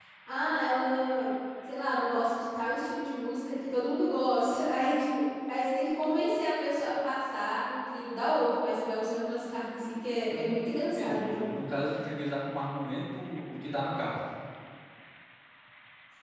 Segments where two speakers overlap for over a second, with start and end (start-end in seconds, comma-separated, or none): 10.2-11.5